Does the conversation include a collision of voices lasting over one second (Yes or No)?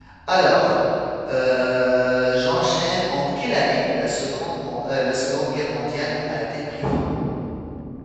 No